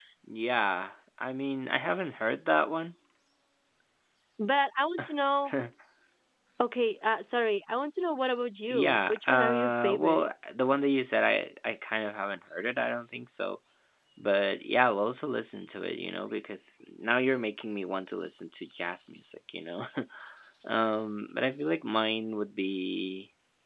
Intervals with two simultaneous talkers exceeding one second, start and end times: 8.7-10.3

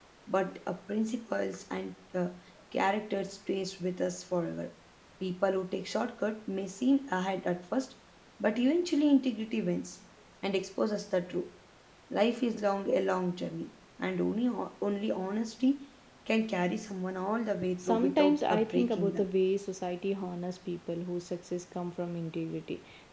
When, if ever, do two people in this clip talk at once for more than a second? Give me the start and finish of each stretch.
17.8-19.3

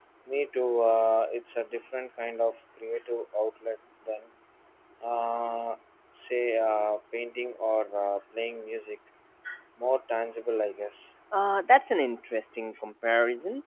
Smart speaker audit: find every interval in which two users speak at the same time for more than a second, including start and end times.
none

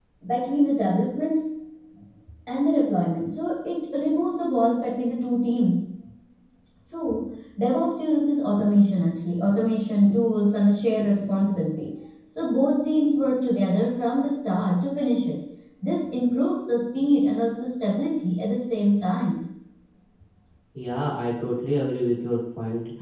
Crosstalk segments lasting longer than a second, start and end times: none

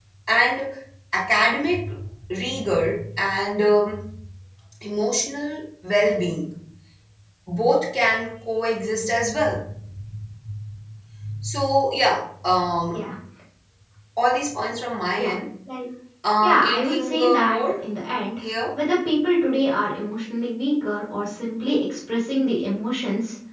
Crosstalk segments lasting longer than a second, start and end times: 16.4-17.8

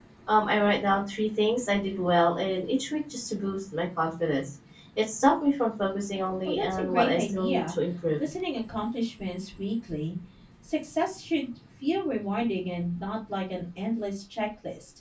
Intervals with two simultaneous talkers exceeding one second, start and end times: 6.5-7.8

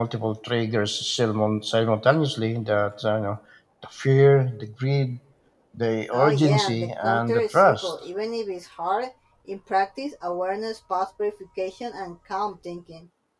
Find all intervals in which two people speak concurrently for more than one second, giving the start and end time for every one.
6.1-8.0

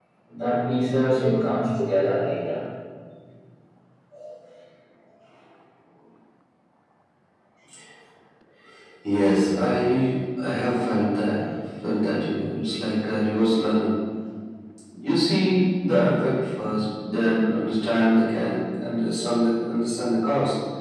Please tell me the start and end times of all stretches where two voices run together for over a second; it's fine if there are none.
none

